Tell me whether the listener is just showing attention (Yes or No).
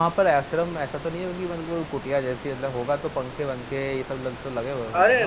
No